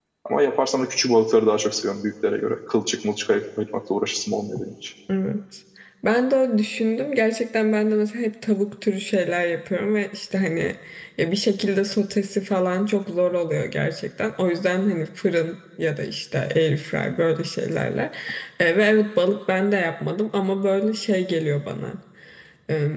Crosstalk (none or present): none